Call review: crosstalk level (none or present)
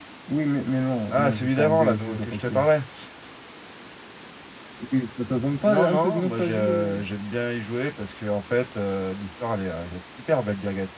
present